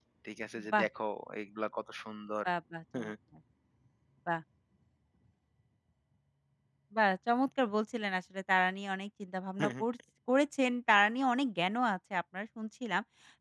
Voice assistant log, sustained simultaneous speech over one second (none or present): none